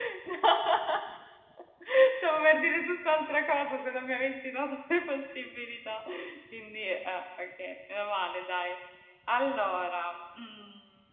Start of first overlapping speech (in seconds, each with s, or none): none